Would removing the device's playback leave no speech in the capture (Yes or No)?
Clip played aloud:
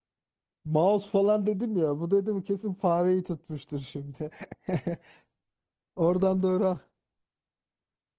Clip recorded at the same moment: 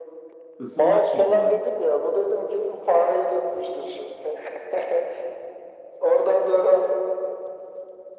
No